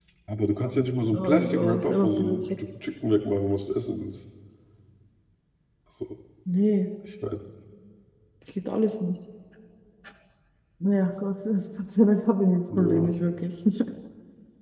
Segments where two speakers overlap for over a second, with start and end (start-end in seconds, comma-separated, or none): 1.1-2.4